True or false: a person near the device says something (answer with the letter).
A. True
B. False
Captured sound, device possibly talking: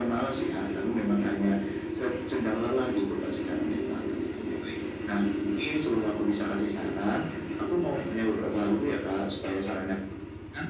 B